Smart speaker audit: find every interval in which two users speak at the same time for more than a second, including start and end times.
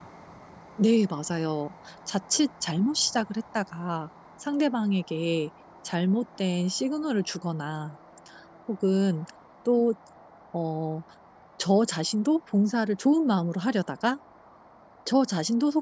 none

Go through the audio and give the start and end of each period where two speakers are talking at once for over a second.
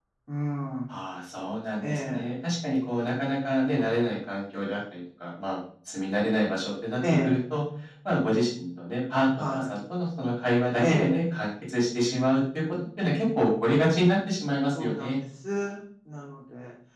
none

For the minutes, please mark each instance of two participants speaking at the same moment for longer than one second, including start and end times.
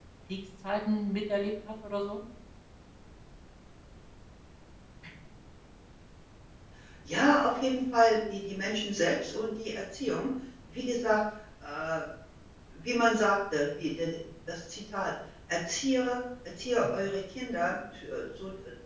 none

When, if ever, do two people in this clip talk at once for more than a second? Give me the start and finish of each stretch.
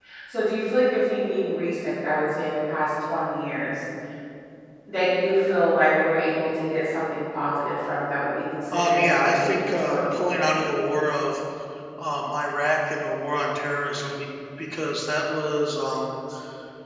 8.7-10.5

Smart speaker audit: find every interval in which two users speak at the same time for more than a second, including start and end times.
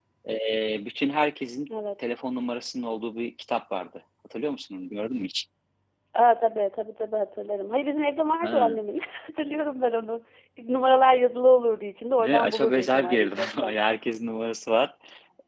12.2-13.8

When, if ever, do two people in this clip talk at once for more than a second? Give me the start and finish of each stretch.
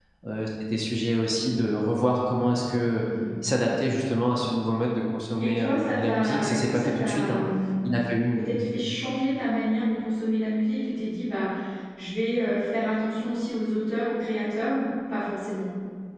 5.4-7.4

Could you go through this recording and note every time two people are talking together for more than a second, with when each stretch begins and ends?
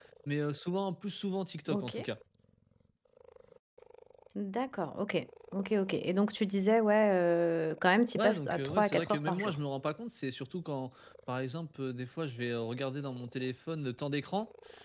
8.2-9.6

